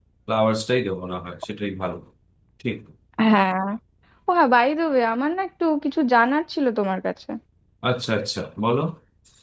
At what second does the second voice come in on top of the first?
none

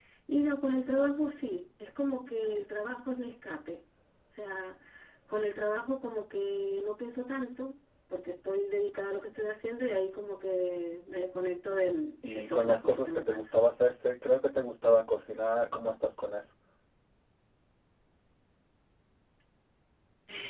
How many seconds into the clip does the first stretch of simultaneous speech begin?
12.3 s

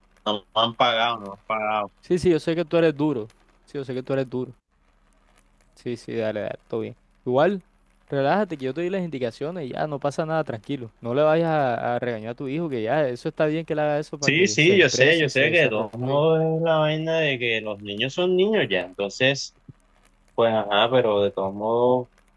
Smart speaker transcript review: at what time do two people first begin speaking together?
14.2 s

